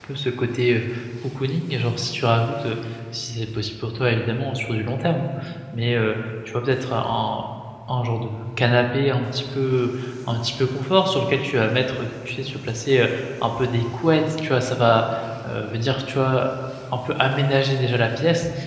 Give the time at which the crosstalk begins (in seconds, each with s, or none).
none